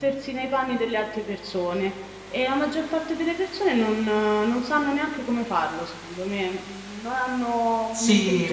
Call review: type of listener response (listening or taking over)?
taking over